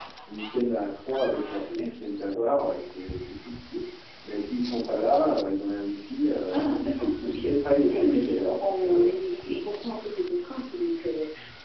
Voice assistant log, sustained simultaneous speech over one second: present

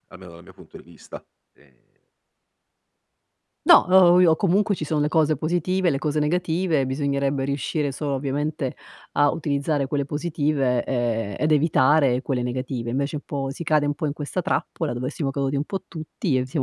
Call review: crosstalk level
none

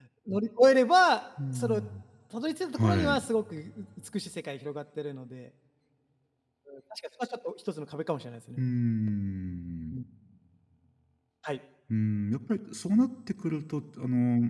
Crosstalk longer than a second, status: none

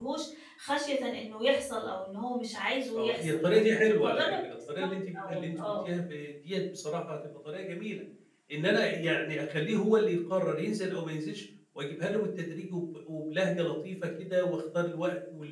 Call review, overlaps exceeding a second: present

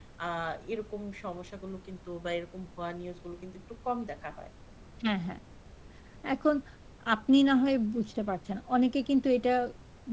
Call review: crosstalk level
none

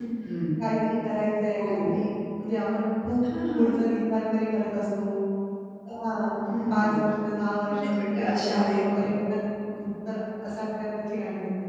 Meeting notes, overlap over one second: present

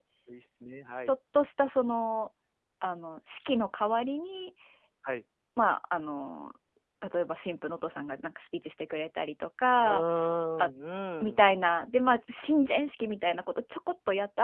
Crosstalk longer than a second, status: none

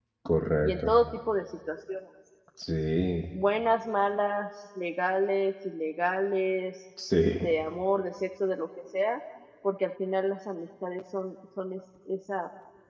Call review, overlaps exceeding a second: none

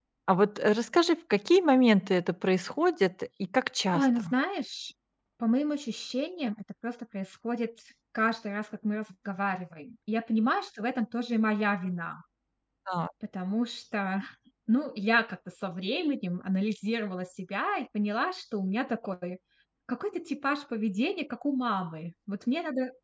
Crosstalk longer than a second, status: none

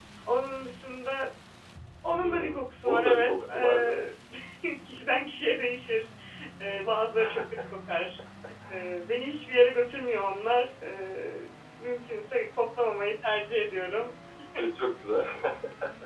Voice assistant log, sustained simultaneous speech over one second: present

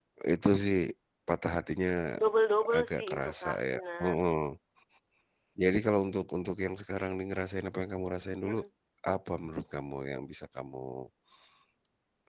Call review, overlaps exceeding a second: present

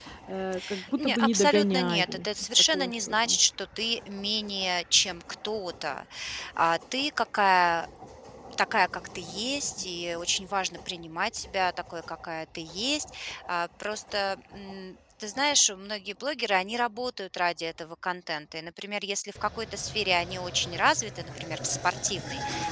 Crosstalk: present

